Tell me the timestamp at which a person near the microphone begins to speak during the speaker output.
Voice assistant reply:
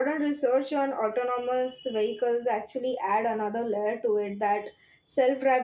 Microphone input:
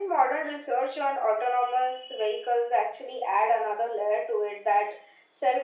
none

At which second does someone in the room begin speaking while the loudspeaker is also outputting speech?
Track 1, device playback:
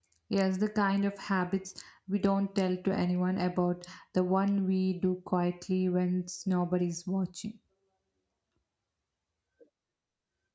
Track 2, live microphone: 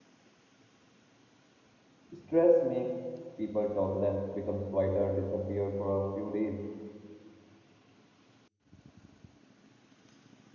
2 s

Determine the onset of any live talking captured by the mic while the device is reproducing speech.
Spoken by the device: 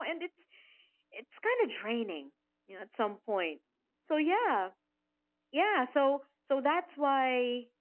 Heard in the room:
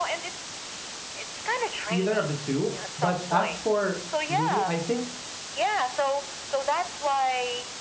2 s

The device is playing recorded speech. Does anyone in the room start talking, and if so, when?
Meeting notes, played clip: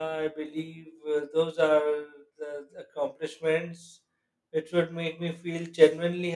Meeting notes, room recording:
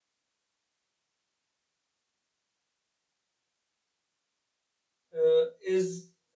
5 s

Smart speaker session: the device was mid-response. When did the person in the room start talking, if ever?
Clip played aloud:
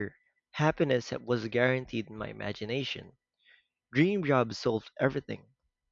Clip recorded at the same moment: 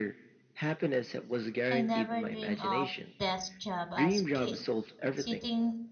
2 s

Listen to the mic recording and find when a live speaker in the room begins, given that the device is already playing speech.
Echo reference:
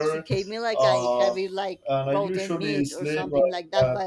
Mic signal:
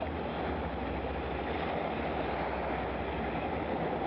none

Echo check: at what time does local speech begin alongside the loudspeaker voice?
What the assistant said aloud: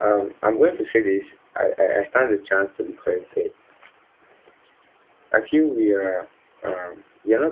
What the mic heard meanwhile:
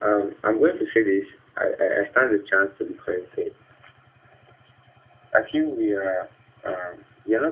none

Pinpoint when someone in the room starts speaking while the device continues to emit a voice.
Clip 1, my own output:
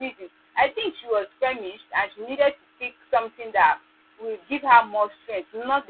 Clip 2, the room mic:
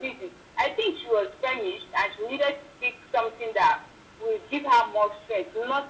none

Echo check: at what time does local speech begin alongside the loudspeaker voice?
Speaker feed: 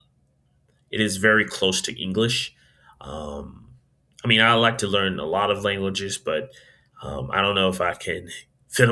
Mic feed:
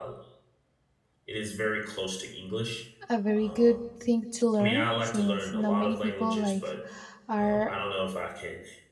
3 s

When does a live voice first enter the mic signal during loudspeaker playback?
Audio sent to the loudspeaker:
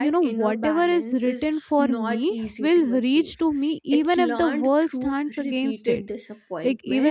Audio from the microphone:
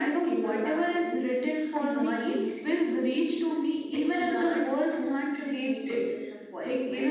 2 s

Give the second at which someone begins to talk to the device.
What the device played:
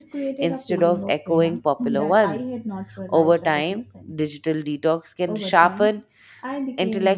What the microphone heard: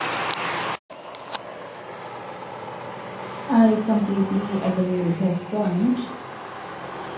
3 s

